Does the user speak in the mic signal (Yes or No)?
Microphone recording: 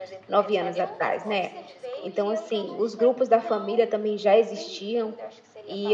Yes